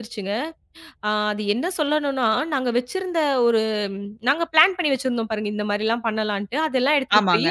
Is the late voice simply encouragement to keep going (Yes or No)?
Yes